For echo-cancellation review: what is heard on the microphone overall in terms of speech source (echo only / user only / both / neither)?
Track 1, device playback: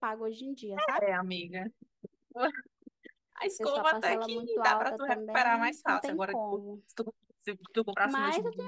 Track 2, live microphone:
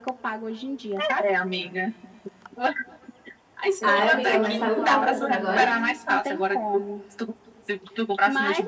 both